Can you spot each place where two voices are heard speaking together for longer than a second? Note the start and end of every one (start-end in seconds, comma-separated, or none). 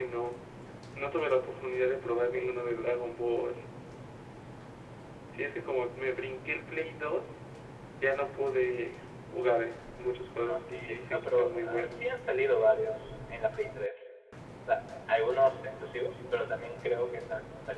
10.5-12.1